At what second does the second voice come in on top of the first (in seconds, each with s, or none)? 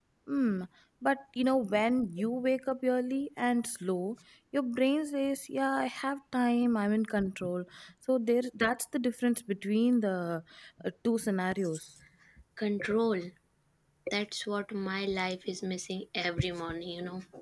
none